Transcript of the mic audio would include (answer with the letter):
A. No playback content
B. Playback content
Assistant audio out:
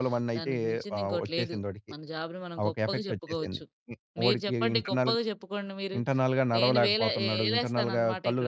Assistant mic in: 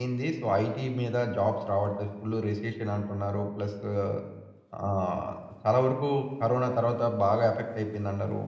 A